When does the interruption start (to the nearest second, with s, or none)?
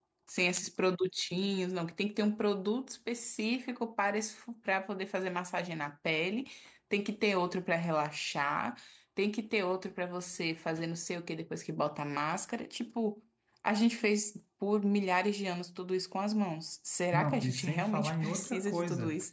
17 s